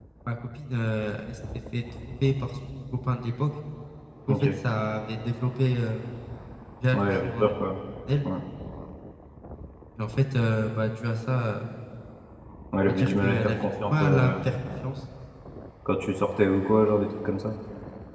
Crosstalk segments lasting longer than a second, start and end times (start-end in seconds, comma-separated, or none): 12.8-14.3